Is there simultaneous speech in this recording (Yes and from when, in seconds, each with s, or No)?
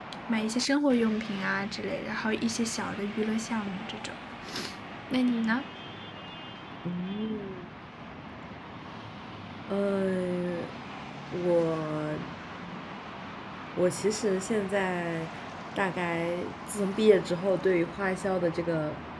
No